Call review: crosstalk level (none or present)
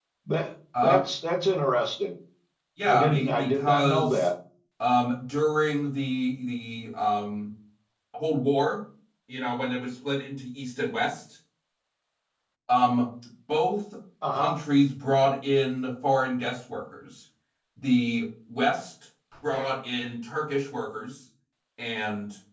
present